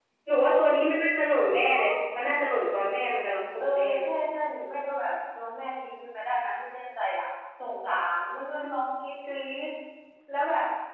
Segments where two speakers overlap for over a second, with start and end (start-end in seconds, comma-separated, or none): none